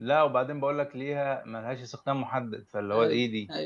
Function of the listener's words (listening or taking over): taking over